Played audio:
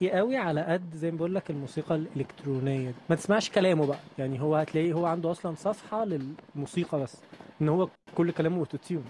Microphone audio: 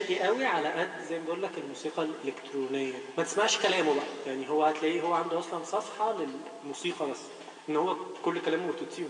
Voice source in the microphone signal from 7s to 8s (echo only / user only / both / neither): echo only